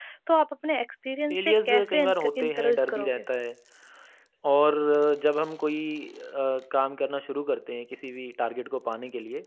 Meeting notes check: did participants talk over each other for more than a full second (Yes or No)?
Yes